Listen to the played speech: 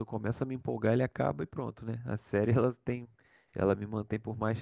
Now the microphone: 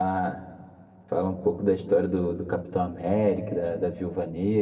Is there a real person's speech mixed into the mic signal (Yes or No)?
Yes